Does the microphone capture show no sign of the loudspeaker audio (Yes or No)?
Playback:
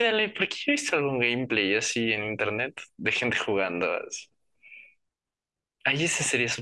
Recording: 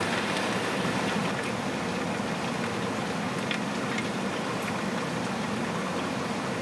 Yes